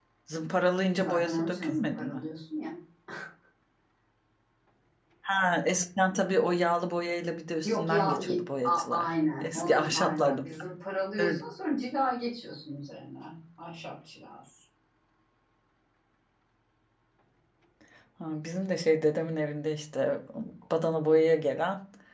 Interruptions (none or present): present